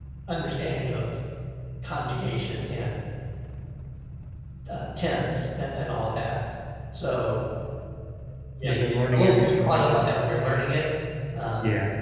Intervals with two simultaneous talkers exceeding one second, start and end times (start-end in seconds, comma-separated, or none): 8.6-10.1